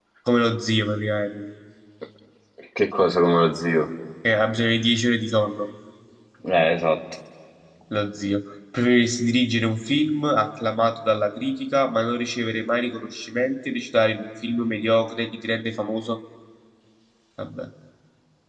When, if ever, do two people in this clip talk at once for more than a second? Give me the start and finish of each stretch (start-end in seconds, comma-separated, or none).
none